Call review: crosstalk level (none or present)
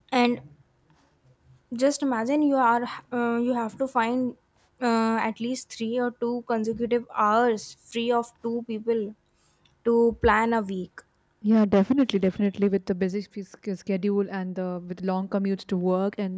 none